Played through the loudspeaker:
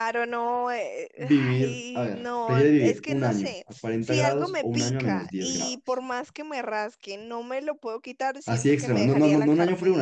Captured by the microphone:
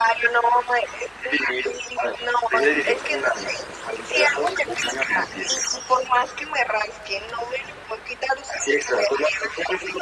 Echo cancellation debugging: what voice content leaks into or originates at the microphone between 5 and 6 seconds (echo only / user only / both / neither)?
echo only